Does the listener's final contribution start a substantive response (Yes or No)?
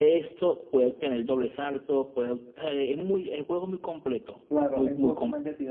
Yes